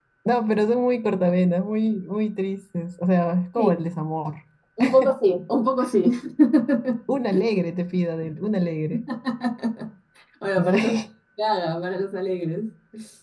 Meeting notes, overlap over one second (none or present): none